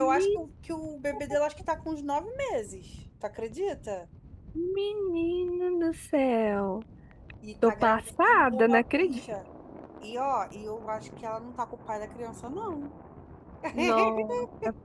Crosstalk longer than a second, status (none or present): present